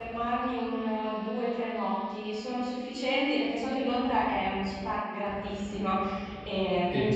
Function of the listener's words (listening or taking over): listening